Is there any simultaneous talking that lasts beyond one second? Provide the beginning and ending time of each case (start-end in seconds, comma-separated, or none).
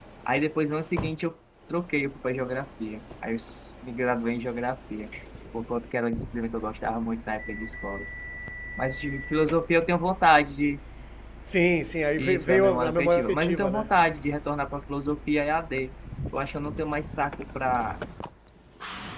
12.2-13.9